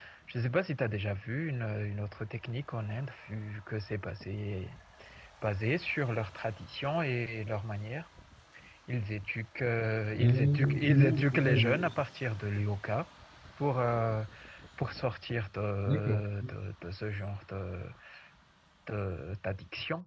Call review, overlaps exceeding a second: present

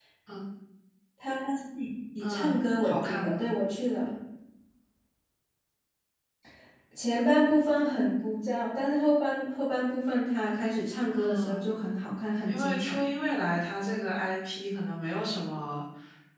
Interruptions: present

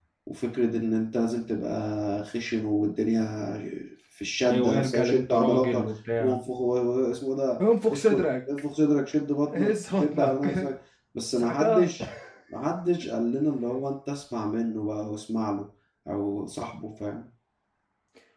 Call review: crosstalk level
present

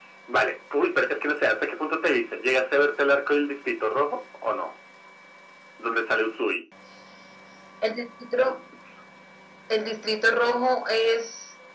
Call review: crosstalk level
none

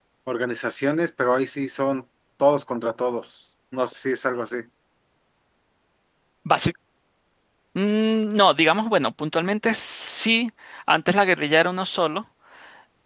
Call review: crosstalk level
none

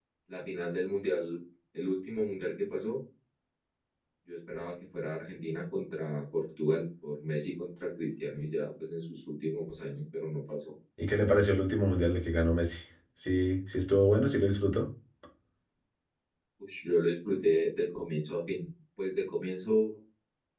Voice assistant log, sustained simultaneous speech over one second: none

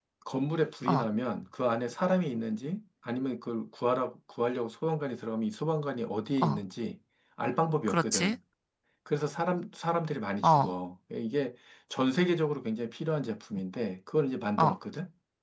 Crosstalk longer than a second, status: none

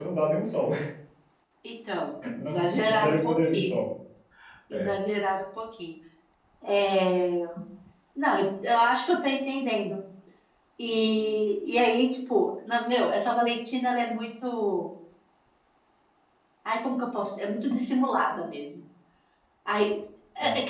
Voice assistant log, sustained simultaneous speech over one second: present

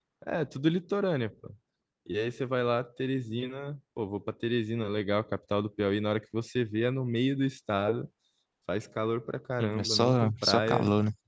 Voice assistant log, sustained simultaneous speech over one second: present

